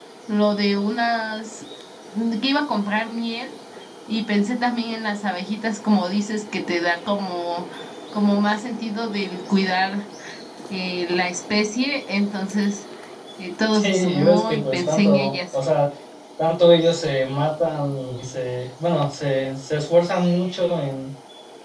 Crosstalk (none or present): present